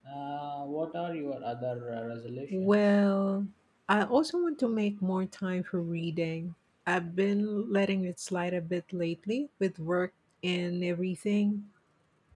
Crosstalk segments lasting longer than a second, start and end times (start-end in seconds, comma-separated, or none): none